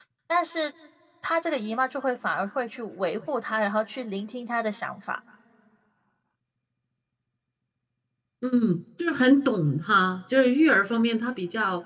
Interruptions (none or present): none